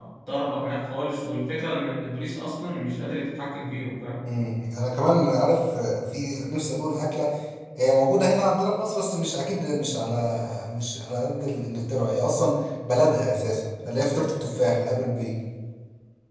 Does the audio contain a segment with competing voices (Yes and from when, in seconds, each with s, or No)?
No